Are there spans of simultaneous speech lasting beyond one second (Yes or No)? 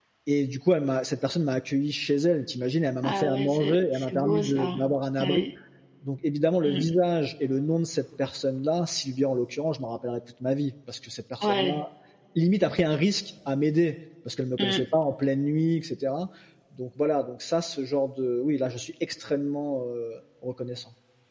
Yes